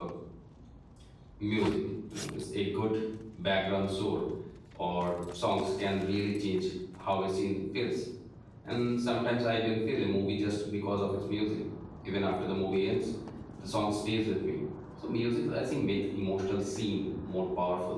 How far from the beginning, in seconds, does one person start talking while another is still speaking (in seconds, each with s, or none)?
none